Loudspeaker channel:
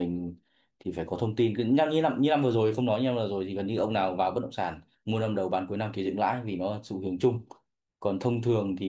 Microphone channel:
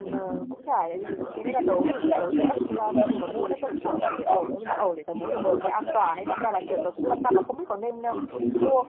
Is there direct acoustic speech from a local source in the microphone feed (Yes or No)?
Yes